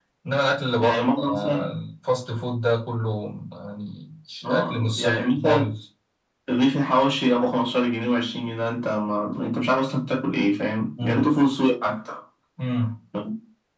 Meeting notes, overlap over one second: present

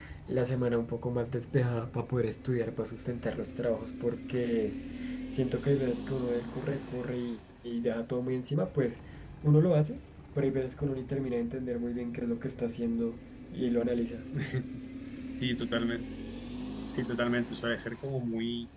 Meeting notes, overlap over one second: none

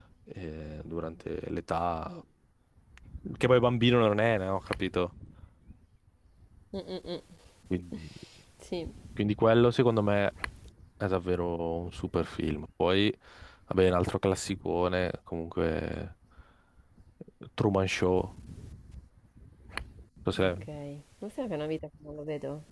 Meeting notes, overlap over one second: none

